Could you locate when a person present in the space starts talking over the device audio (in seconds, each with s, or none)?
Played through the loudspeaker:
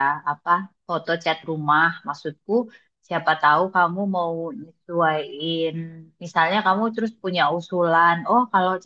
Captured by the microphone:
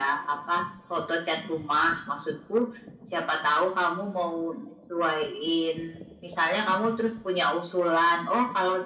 none